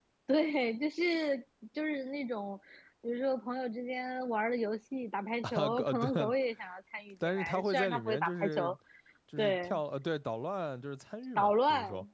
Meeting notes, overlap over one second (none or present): present